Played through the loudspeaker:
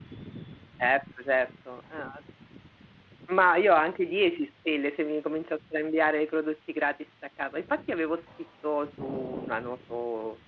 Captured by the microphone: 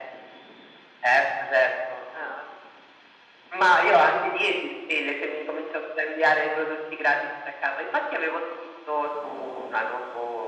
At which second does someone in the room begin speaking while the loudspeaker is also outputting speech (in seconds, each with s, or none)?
none